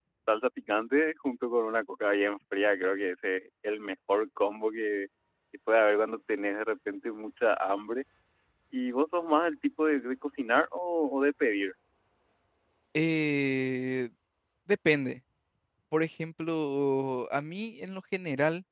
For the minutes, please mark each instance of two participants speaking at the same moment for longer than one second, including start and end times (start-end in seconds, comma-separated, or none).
none